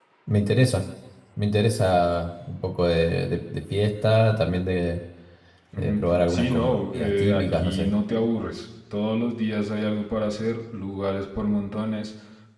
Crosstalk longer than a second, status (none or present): present